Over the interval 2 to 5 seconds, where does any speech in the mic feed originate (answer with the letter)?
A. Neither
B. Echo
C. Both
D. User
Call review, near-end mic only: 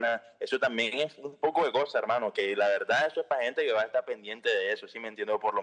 B